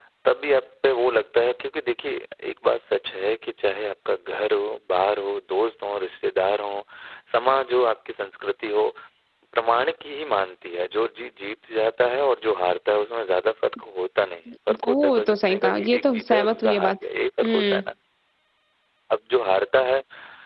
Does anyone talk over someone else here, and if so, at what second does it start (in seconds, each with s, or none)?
14.9 s